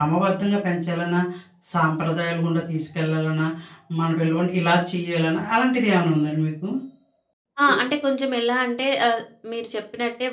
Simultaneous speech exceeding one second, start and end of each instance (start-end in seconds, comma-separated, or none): none